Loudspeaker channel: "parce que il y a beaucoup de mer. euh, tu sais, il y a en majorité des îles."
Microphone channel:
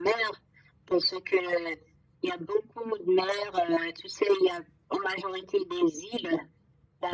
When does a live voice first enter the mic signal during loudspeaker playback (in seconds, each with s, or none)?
none